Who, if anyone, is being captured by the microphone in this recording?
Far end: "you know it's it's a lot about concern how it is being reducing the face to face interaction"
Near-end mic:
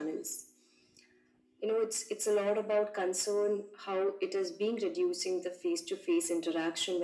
echo only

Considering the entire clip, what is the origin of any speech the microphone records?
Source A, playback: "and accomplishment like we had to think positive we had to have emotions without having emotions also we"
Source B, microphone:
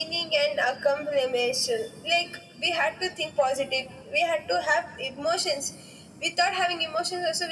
echo only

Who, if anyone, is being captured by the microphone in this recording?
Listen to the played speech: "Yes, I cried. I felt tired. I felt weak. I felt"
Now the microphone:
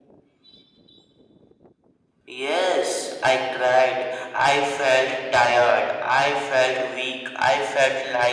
echo only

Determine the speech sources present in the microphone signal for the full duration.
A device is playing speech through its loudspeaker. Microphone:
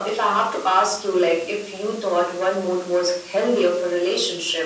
echo only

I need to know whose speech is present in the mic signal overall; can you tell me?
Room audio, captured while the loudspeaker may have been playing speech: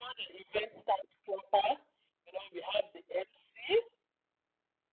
echo only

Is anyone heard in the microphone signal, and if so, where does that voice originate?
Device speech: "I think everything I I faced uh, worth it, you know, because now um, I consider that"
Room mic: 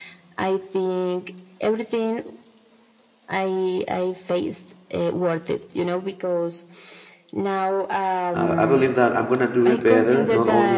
both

